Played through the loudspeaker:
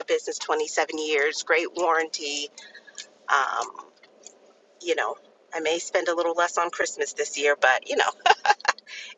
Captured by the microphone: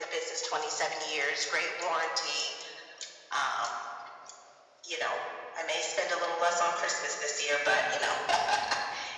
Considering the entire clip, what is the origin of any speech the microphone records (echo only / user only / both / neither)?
echo only